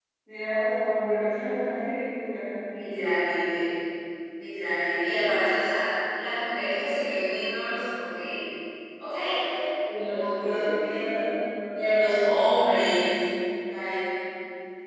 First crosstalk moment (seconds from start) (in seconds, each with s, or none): 9.9 s